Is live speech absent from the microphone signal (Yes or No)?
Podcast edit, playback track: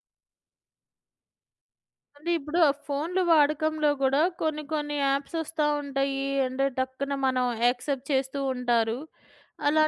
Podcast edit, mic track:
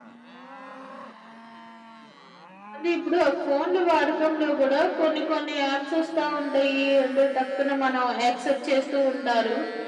Yes